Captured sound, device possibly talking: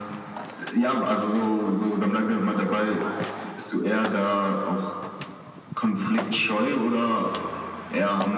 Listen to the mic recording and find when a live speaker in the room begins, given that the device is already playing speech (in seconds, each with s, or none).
none